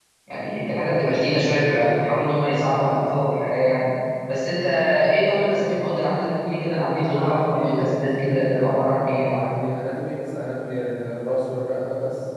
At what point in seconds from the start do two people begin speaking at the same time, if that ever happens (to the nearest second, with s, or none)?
7 s